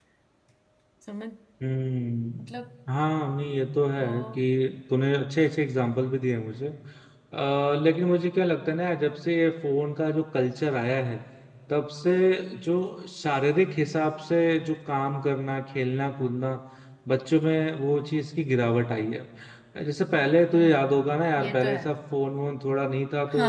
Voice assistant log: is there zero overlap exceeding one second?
Yes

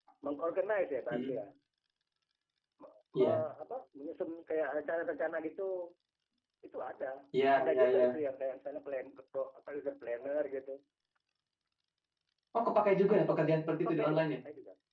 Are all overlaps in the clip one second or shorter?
No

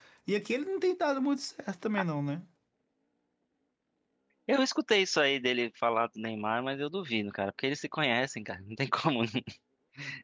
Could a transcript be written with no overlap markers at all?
Yes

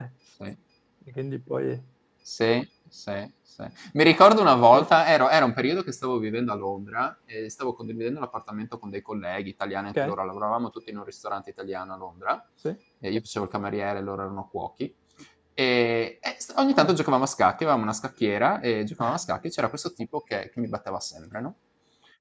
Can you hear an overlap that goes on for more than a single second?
No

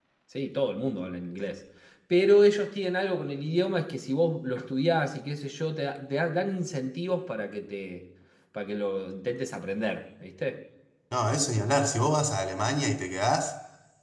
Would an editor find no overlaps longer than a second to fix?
Yes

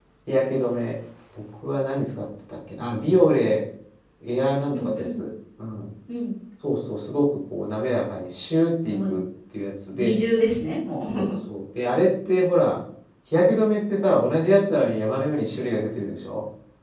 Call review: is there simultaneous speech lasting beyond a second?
No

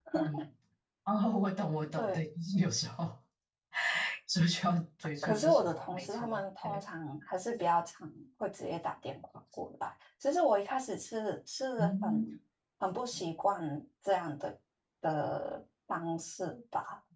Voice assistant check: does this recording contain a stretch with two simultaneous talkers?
Yes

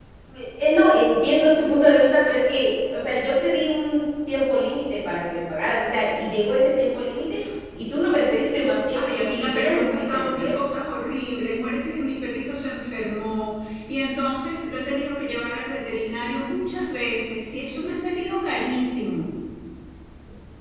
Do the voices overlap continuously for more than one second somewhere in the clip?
Yes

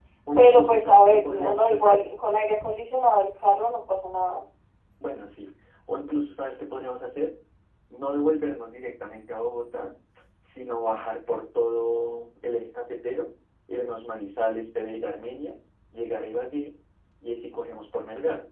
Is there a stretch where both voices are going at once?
Yes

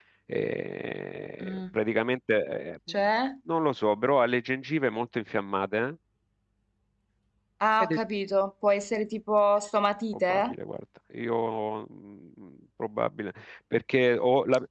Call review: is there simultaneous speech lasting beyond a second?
No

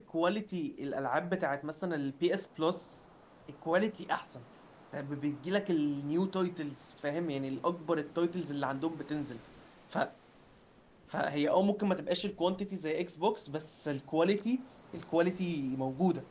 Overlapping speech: No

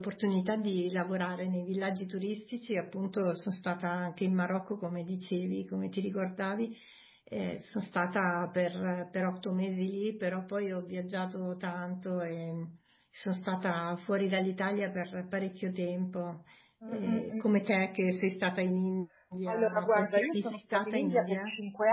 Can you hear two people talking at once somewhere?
Yes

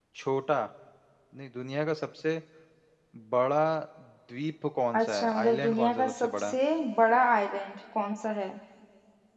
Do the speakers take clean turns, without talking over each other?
No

